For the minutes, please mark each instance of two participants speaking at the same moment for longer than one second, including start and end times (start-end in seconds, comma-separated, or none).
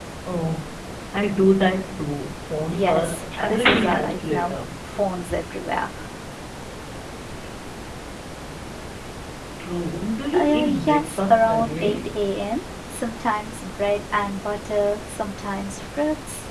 2.7-4.5, 10.3-12.0